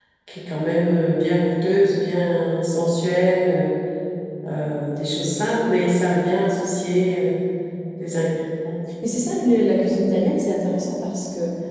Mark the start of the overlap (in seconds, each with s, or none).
none